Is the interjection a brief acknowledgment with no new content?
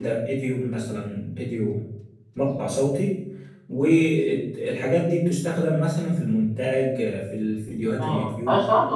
No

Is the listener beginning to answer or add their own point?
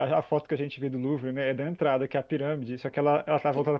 No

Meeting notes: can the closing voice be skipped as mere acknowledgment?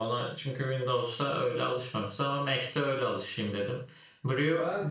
Yes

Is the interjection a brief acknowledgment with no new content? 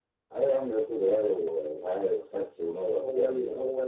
No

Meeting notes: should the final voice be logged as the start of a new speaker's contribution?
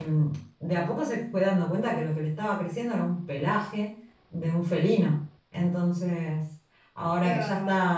No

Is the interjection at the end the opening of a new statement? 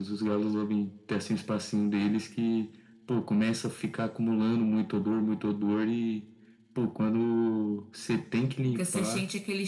Yes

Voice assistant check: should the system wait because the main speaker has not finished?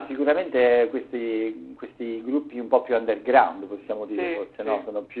Yes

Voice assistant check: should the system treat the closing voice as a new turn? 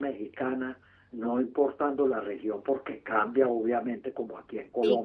No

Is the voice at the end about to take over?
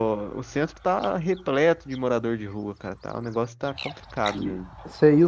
Yes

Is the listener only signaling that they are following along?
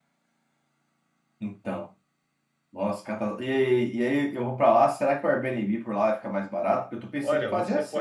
No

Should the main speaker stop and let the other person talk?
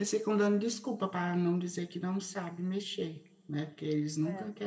No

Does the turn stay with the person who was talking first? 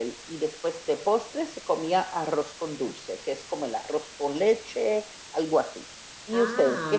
No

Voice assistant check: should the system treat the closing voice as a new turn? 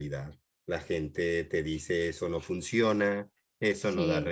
No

